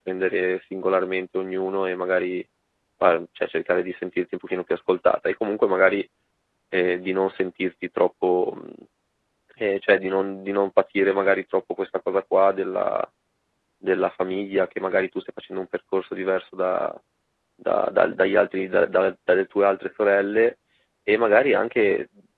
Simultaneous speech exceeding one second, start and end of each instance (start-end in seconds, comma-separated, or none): none